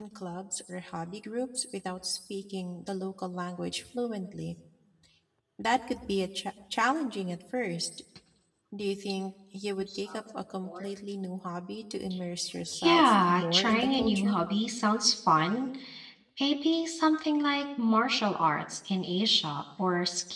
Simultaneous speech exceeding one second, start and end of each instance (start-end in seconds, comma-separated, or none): 12.8-14.3